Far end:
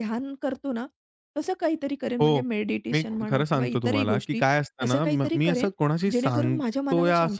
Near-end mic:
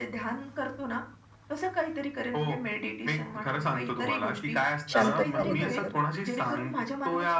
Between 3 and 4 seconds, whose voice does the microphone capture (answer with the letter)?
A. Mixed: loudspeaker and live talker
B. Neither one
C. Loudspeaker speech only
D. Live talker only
C